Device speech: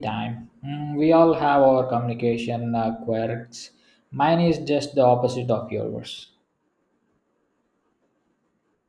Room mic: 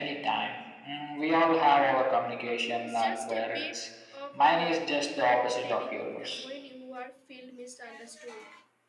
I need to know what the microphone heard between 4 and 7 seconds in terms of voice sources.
both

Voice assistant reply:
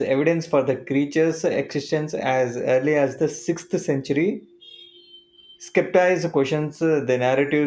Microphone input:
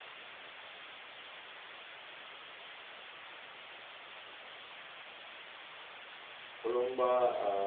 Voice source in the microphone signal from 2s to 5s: neither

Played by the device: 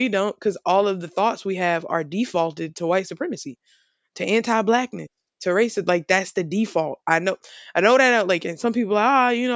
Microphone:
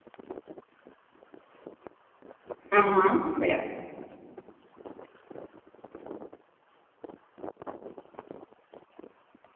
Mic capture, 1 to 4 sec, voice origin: user only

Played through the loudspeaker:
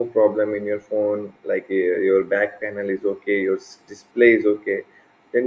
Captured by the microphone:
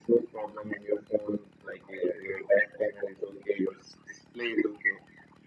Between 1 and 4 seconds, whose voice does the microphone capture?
echo only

